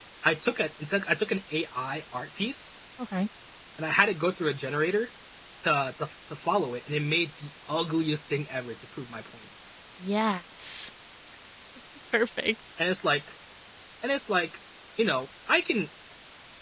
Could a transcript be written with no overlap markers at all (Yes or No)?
Yes